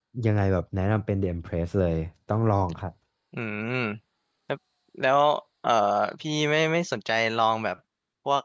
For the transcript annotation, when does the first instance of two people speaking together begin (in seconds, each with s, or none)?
none